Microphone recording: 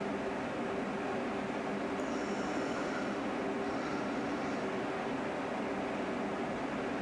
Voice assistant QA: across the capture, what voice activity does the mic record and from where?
neither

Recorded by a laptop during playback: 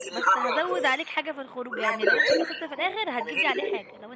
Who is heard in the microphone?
both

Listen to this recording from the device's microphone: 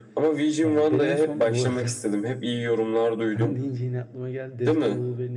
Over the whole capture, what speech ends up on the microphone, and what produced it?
both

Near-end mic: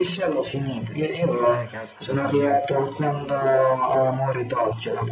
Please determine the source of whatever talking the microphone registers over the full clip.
both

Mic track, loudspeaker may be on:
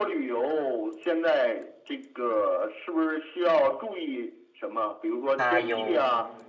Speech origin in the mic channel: both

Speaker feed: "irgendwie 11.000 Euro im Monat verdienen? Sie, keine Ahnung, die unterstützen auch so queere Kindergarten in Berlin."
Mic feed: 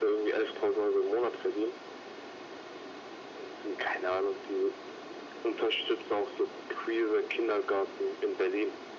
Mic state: echo only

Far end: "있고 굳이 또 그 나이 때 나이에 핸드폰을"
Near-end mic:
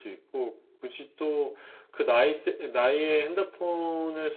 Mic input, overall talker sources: echo only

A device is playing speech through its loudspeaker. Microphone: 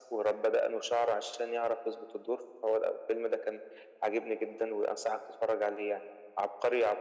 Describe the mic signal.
echo only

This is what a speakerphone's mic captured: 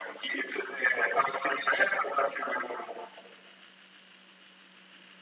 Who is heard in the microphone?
echo only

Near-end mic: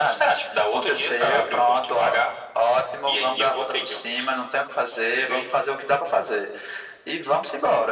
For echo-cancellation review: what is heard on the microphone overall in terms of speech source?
echo only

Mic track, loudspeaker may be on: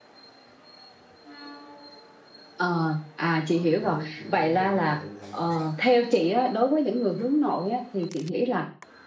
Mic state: both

